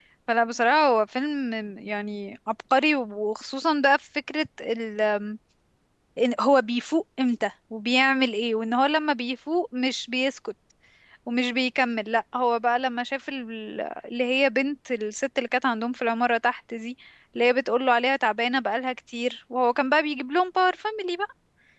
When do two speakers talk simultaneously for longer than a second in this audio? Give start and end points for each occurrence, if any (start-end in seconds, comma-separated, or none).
none